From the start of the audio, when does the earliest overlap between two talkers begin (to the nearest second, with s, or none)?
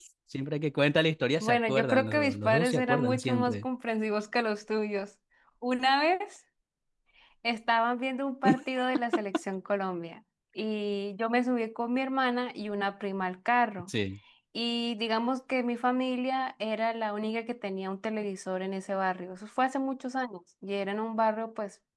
1 s